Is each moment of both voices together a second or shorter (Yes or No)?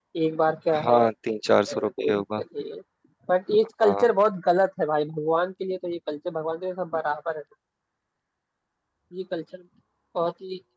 No